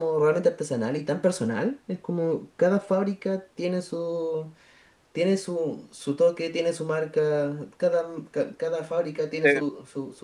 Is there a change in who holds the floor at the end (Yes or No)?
Yes